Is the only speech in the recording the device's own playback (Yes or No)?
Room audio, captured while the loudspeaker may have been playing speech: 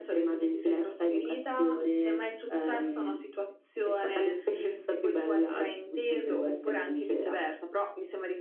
Yes